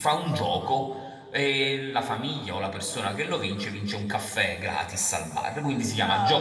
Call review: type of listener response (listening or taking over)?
listening